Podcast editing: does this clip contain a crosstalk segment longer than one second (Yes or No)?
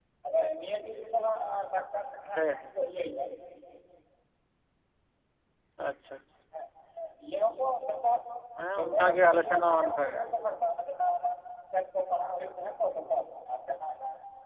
Yes